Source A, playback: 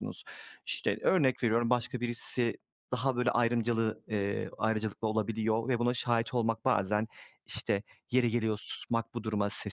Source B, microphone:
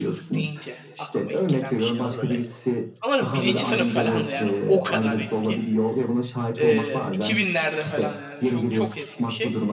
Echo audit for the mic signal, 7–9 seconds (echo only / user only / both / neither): both